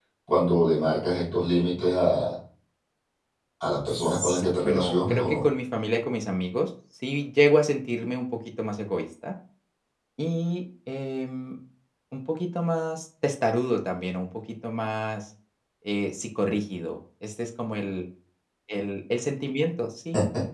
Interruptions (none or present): present